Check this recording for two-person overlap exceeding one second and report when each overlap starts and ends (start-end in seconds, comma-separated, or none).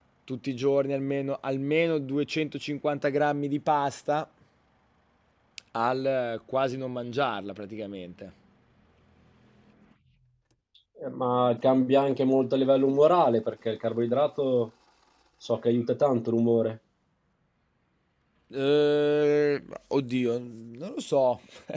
none